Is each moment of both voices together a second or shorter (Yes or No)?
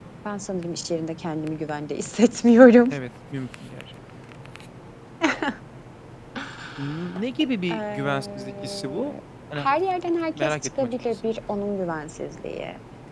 No